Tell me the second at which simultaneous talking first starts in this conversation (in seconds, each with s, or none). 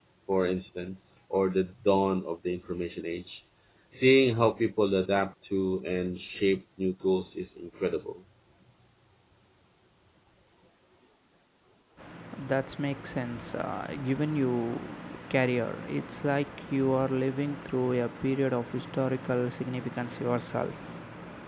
none